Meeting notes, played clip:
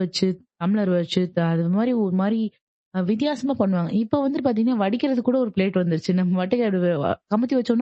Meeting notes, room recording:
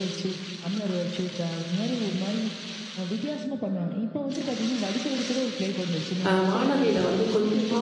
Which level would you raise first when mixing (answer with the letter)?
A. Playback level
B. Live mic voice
A